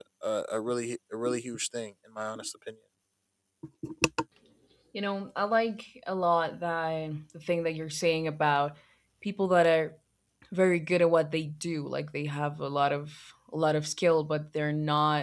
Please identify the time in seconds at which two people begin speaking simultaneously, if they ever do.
none

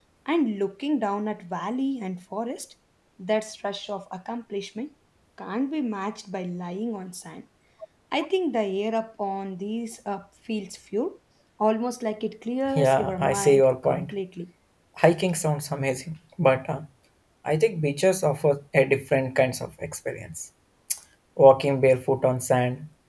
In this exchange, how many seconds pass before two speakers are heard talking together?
13 s

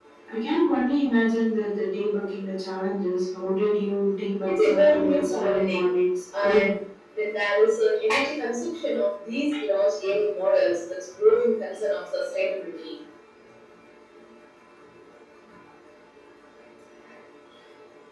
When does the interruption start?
4 s

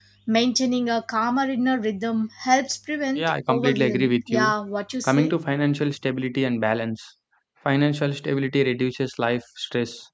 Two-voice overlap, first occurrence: 3 s

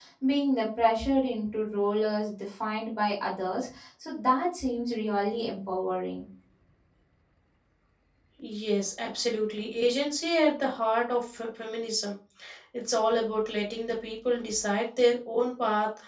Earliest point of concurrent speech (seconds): none

